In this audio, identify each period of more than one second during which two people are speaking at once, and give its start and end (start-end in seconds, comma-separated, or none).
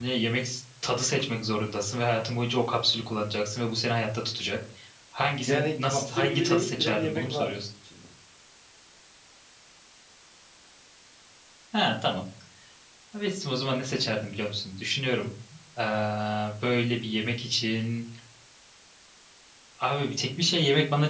5.4-7.5